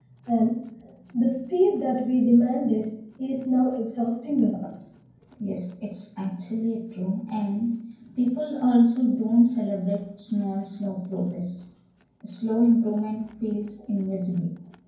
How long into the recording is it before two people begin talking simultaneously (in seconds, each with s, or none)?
none